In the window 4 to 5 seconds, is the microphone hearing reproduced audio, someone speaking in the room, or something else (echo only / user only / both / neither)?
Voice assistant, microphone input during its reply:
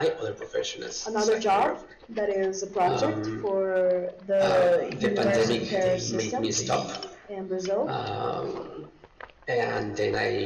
echo only